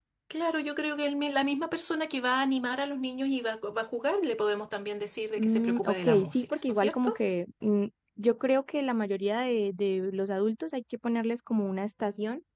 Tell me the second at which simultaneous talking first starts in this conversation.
5.4 s

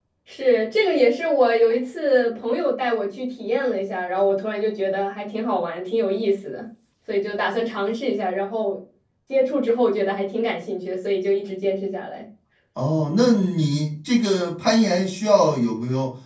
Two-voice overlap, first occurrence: none

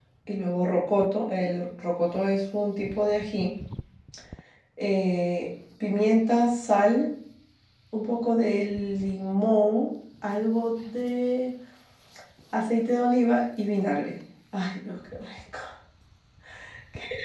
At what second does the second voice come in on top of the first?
none

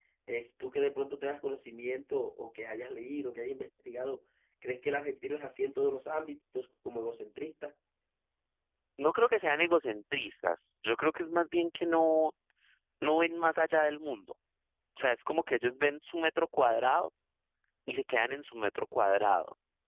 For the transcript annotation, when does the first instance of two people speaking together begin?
none

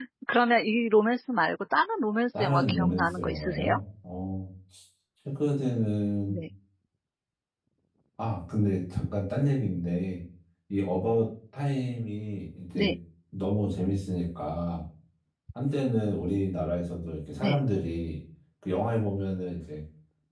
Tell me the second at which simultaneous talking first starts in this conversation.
2.4 s

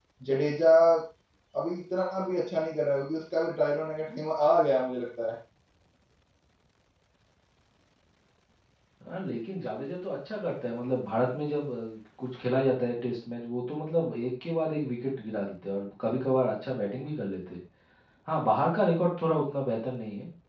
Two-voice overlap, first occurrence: none

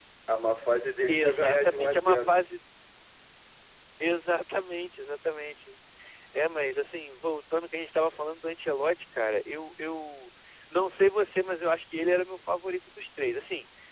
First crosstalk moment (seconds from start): 1.1 s

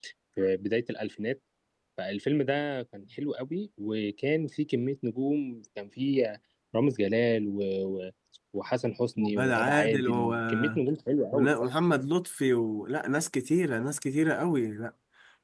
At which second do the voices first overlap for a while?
9.2 s

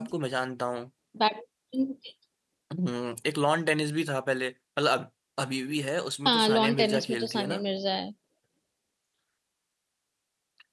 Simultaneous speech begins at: 6.2 s

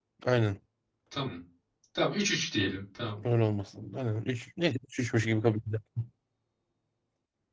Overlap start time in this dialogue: none

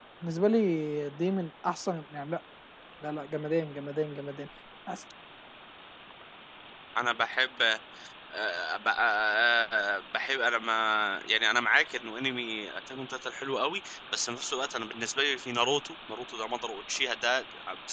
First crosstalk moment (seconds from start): none

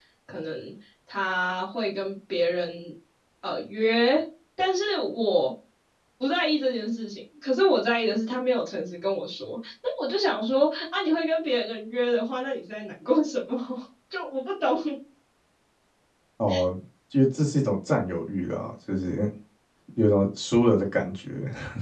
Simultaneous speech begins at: none

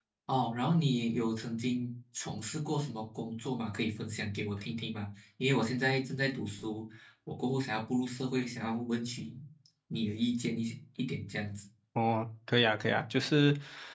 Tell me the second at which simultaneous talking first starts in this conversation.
none

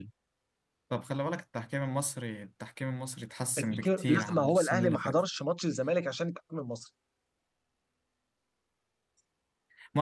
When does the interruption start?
3.6 s

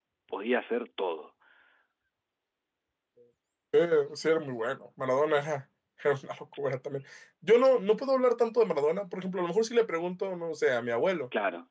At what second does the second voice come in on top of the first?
none

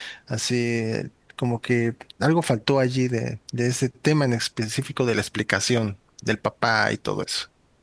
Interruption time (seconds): none

